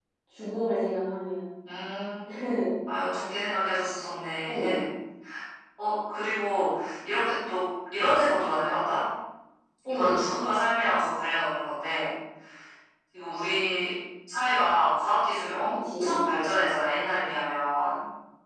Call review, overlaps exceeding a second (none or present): none